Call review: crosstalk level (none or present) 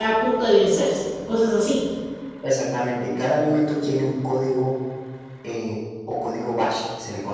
none